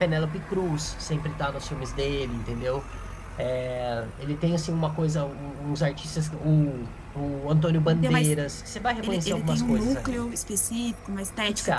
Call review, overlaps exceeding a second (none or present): present